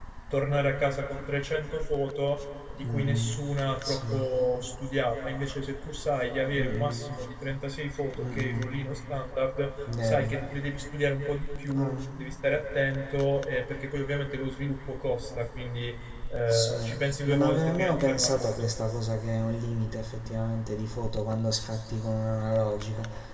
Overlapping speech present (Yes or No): Yes